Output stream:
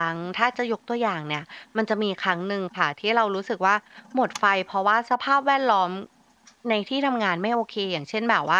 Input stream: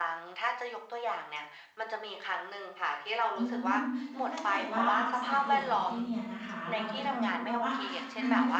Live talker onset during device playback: 3.4 s

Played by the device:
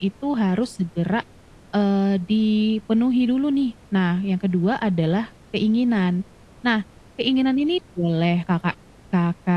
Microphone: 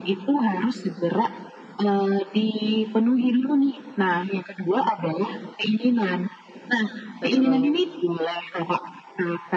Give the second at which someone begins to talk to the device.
7.2 s

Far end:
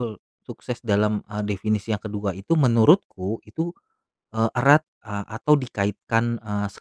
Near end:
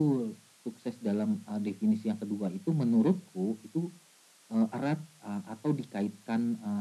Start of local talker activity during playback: none

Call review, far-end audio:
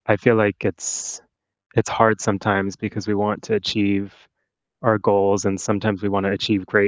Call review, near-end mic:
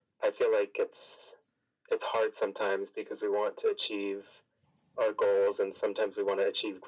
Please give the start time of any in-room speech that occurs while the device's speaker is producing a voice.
none

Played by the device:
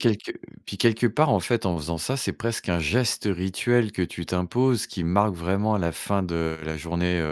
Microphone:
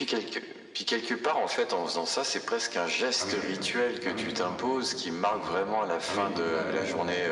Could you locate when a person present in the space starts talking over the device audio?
3.2 s

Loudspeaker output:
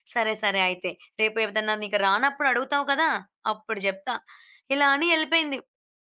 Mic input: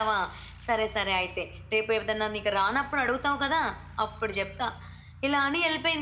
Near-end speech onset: none

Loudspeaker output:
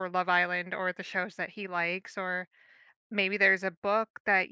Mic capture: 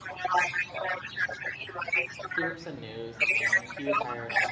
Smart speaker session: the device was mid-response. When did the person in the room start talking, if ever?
2.3 s

